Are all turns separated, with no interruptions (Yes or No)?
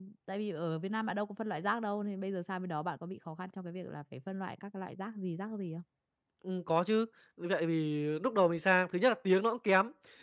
Yes